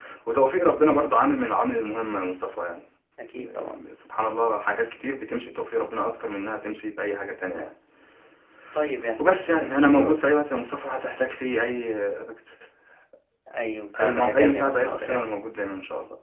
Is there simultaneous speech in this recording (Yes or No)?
Yes